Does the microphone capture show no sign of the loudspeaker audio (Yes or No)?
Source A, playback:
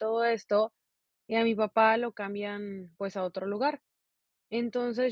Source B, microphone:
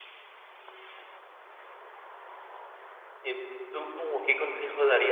Yes